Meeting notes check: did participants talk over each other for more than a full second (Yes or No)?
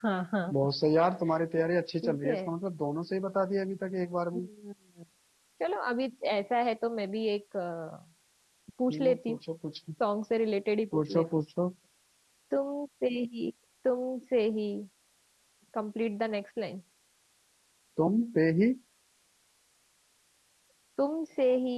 No